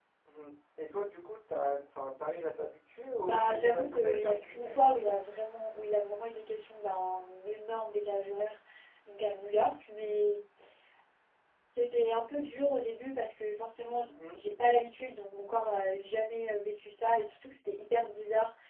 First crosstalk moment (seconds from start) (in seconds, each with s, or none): 3.2 s